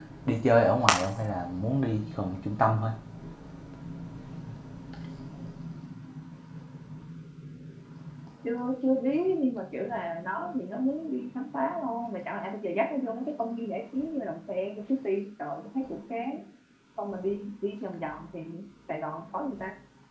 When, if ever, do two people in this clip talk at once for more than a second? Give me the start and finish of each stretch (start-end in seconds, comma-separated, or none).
none